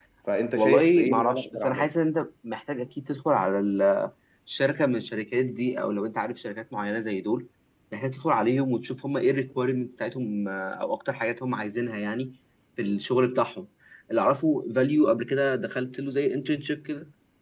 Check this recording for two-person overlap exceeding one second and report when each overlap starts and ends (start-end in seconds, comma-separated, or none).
0.5-1.9